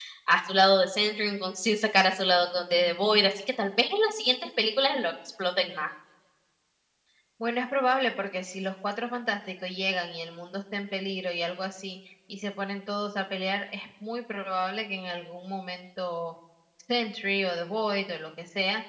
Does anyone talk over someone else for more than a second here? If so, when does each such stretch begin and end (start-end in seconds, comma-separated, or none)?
none